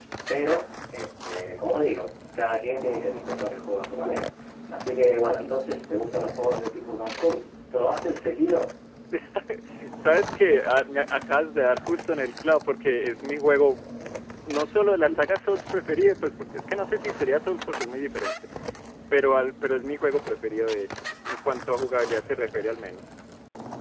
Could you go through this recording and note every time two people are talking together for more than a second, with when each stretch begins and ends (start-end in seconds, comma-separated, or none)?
none